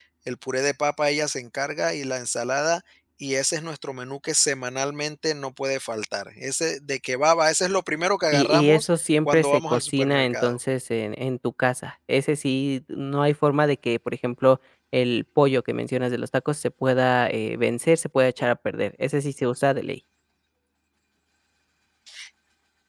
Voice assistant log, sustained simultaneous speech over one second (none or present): present